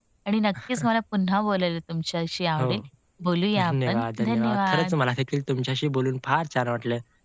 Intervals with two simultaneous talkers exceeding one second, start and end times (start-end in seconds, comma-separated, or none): 3.6-4.9